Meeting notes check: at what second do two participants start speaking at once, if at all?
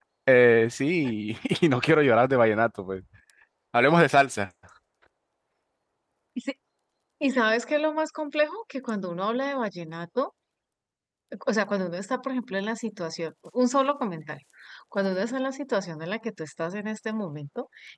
none

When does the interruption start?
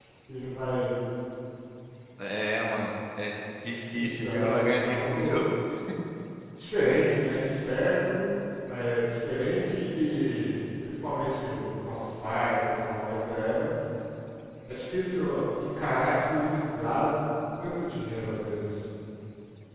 3.9 s

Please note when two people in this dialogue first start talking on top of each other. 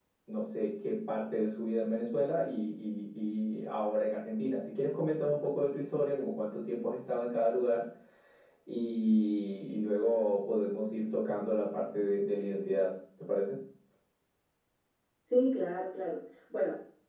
none

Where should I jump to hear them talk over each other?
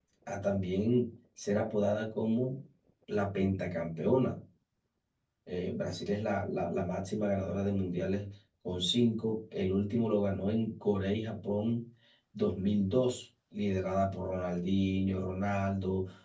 none

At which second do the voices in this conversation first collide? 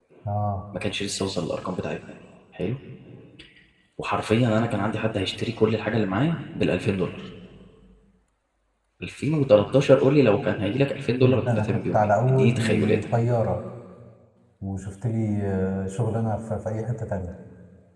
11.2 s

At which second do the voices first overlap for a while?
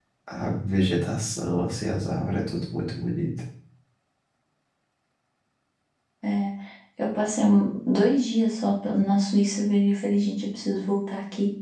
none

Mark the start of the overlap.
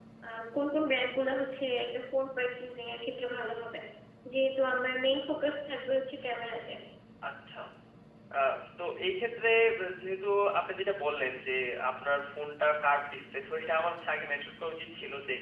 none

